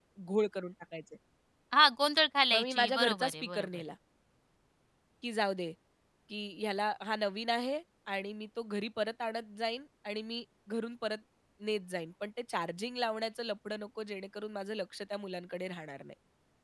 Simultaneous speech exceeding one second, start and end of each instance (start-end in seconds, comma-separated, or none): 2.5-3.8